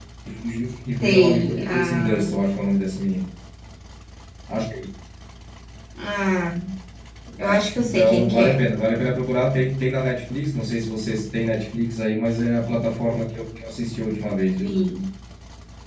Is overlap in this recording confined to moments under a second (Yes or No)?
No